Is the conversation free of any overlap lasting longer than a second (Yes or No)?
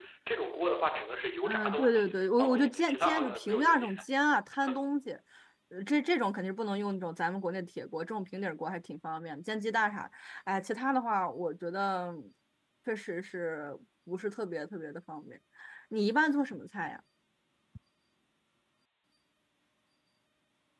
No